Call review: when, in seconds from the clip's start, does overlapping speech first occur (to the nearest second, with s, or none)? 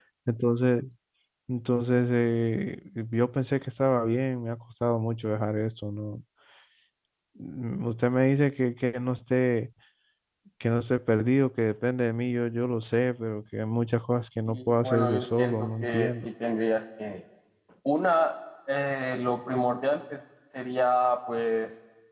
14 s